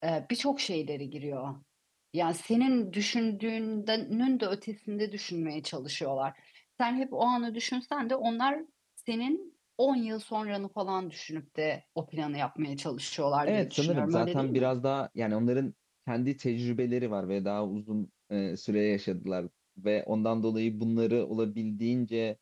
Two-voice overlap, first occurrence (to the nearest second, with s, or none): 13 s